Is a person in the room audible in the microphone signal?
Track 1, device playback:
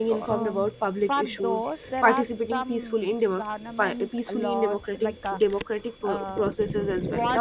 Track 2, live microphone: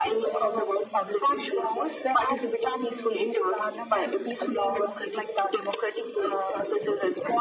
No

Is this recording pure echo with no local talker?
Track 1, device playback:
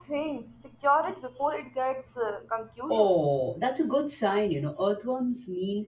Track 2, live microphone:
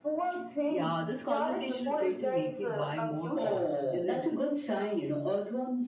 No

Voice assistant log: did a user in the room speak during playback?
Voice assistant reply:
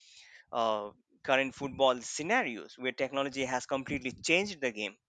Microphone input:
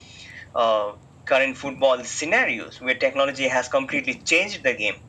No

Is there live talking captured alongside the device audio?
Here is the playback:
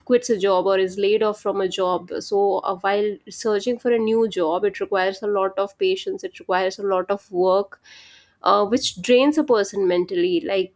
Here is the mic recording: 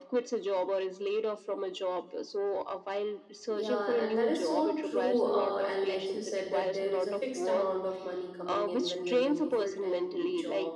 Yes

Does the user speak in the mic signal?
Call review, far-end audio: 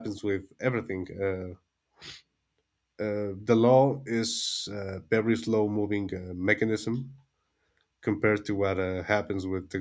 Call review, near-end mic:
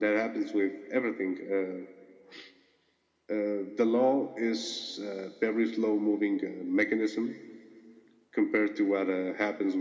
No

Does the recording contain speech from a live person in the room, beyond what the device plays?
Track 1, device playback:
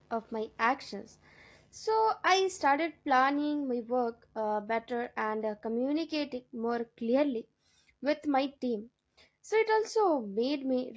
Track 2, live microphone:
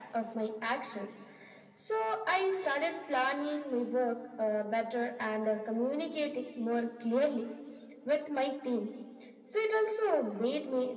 No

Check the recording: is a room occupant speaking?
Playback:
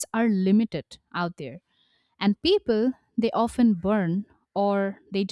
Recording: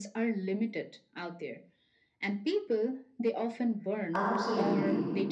Yes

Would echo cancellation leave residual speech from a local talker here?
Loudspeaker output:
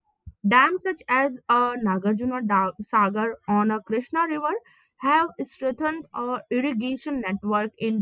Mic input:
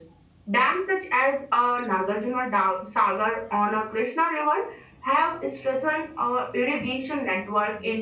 No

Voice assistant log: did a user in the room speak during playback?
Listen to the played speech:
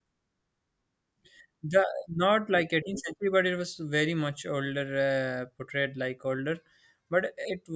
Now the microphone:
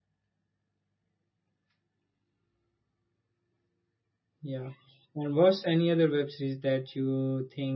Yes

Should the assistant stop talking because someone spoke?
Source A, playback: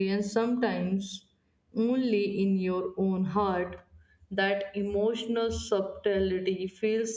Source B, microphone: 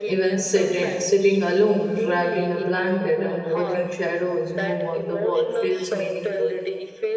Yes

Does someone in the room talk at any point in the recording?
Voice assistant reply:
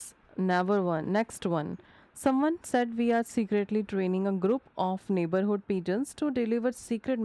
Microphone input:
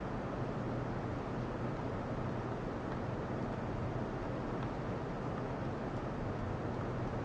No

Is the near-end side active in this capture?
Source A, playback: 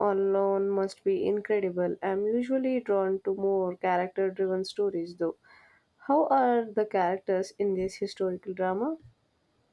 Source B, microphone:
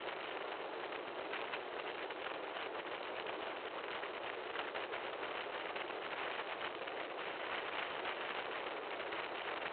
No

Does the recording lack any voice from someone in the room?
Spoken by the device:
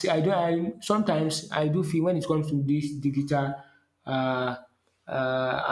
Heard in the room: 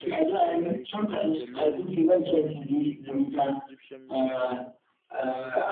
No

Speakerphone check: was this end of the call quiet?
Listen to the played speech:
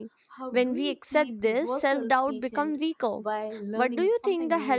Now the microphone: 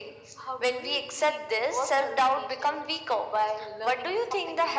Yes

